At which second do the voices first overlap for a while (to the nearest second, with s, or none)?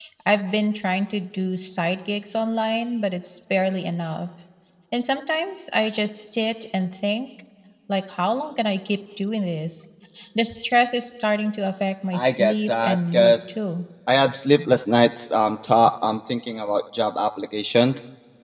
12 s